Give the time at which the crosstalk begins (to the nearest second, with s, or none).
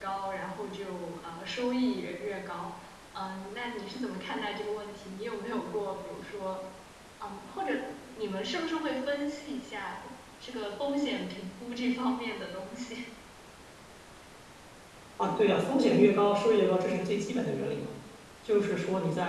none